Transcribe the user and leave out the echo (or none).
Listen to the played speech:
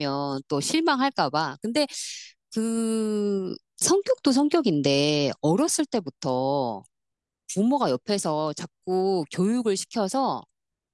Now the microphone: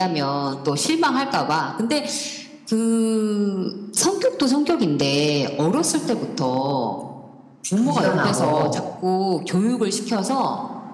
부지런하고,